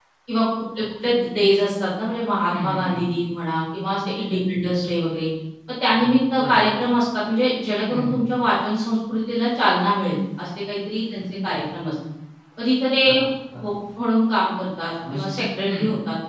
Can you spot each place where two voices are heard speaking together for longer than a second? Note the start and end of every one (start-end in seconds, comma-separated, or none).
none